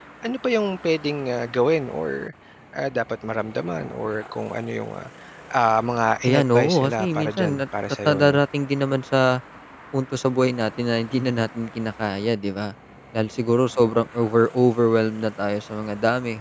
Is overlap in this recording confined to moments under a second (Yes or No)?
No